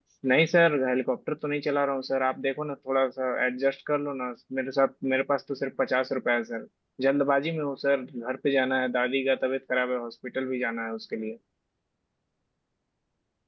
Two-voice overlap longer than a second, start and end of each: none

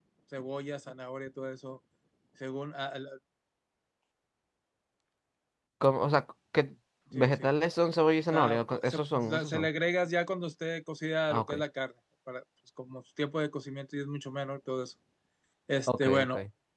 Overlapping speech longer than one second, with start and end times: 8.3-9.7

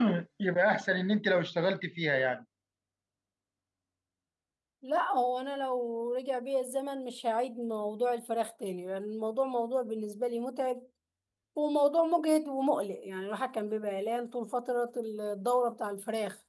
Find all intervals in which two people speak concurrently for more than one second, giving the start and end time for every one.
none

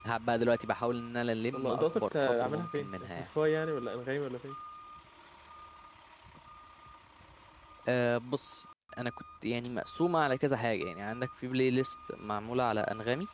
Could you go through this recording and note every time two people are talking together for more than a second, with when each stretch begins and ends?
1.5-3.1

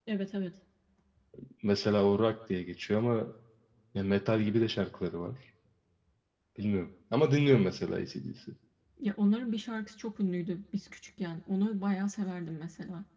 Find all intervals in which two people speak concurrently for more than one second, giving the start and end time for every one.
none

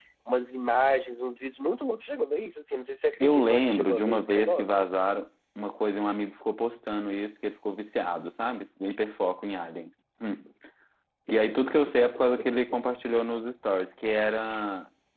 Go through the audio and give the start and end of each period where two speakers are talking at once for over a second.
3.2-4.7

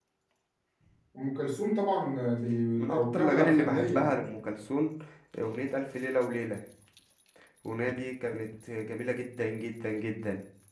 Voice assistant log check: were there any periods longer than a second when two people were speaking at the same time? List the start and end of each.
2.8-4.1

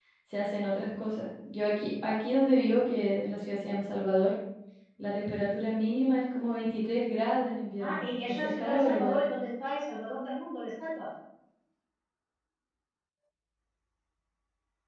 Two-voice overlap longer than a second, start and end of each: 7.8-9.2

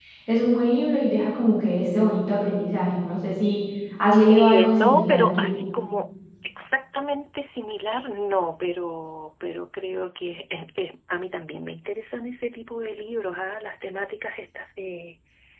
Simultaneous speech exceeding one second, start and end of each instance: 4.3-5.5

